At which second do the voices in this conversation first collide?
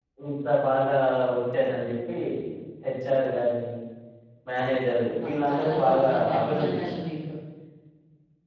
5.1 s

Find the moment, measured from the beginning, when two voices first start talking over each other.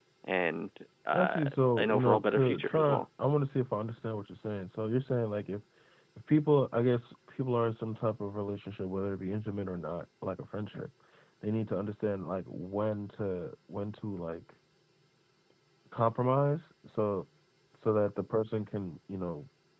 1.1 s

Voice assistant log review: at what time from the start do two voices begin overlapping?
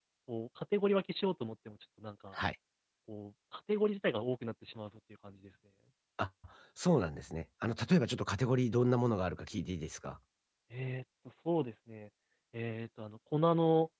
none

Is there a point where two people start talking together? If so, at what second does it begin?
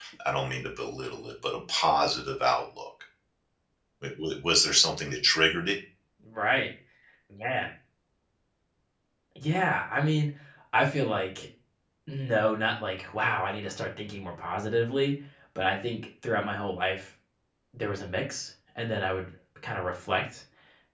none

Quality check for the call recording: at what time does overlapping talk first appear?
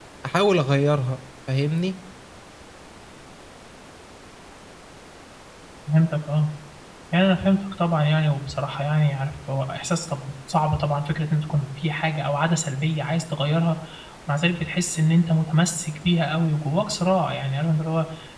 none

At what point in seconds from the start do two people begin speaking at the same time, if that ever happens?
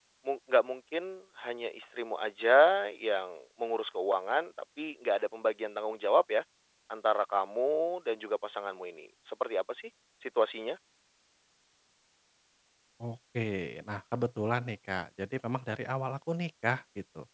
none

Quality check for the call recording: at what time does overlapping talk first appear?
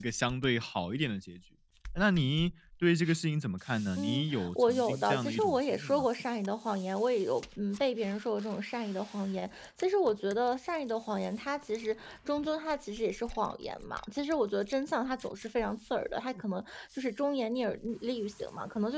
4.0 s

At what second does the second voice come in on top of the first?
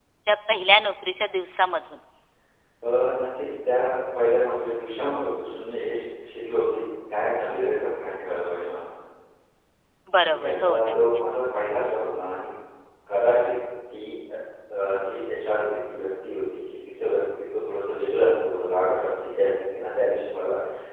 10.2 s

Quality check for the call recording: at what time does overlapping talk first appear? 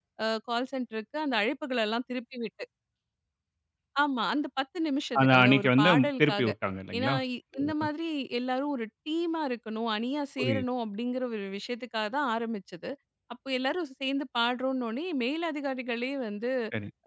5.2 s

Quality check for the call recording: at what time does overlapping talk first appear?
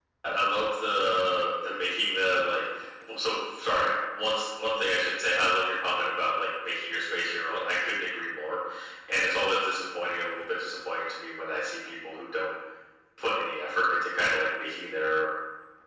none

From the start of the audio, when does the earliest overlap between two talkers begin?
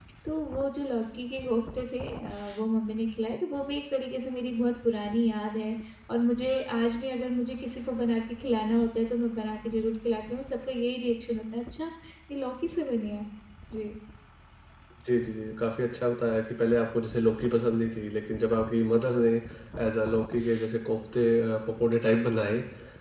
none

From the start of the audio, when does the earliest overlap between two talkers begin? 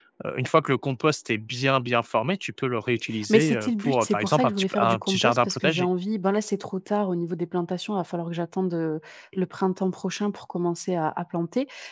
3.1 s

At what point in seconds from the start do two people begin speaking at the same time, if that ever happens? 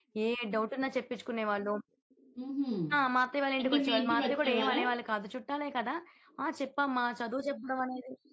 3.6 s

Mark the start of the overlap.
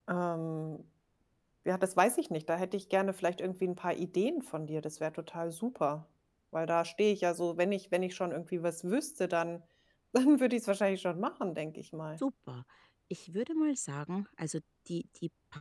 none

